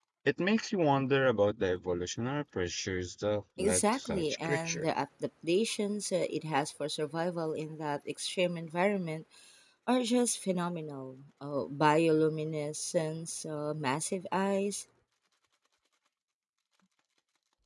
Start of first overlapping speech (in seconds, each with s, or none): 3.6 s